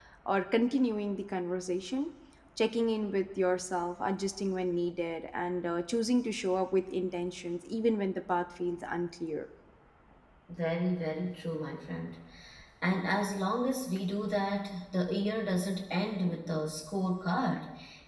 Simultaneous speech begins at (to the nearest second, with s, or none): none